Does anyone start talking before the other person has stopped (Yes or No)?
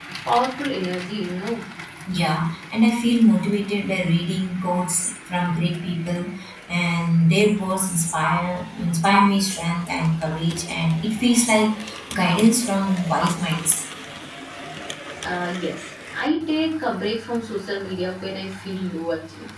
No